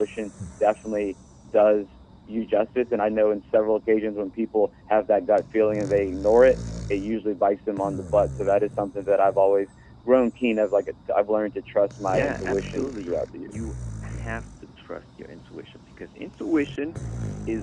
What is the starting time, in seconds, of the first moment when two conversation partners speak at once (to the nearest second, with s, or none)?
12 s